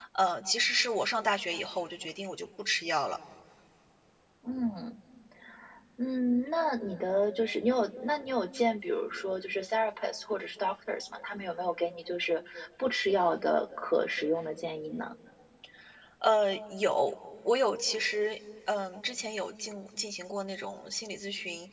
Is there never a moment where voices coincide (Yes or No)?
Yes